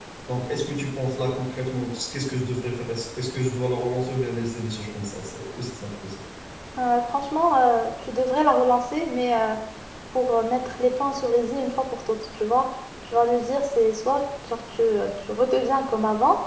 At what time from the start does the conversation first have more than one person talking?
none

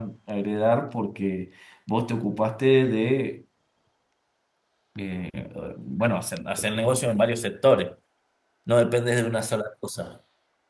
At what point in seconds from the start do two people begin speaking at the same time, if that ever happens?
none

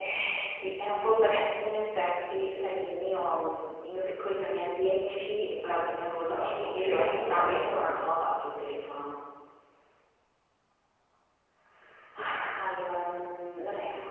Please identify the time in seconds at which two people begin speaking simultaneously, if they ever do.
6 s

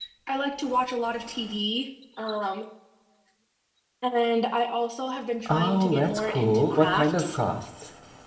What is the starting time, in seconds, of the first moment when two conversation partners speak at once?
5 s

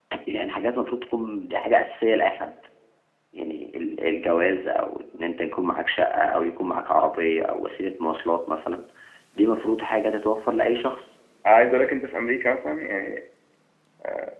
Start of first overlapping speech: none

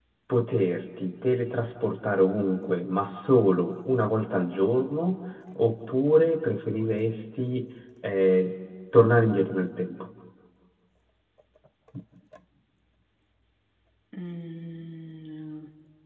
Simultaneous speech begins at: none

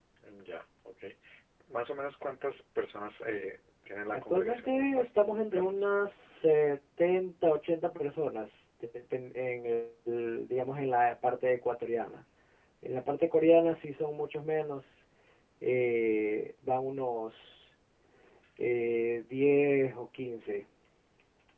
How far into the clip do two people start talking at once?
4 s

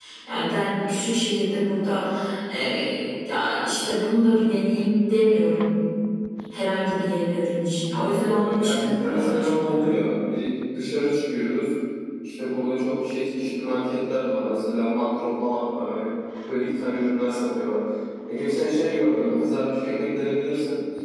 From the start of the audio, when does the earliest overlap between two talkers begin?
8 s

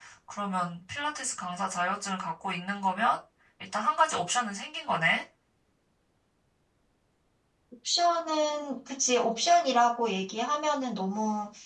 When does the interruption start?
none

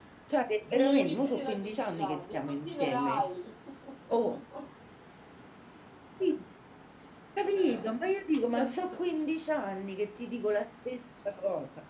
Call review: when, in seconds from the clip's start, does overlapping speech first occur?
1 s

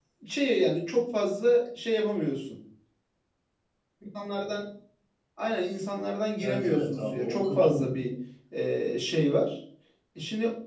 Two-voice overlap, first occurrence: 6 s

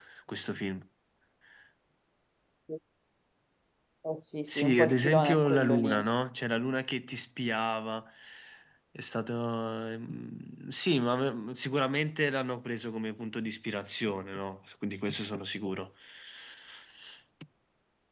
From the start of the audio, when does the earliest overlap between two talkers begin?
4 s

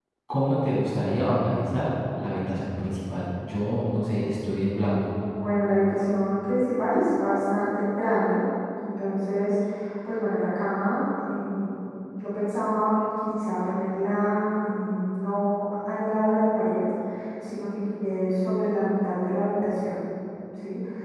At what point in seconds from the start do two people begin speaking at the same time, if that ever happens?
none

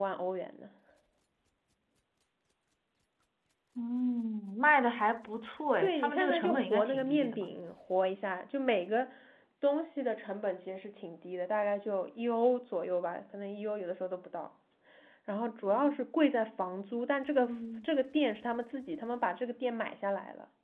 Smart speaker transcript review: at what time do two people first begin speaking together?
6 s

